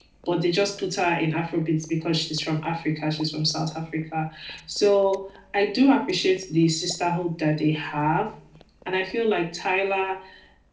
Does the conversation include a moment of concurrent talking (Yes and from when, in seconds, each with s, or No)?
No